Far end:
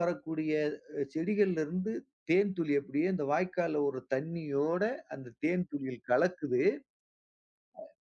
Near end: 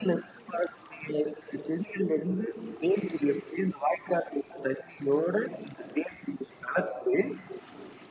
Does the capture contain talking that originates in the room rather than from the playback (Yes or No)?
No